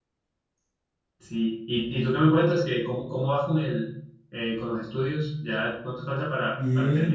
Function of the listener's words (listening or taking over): taking over